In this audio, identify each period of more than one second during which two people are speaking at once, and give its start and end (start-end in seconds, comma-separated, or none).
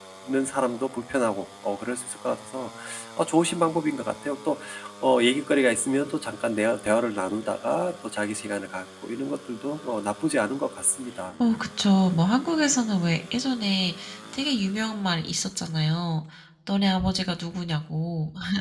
none